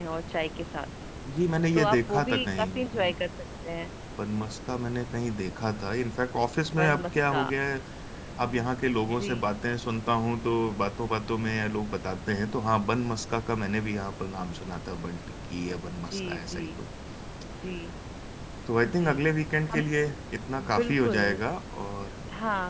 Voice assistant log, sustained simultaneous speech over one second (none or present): present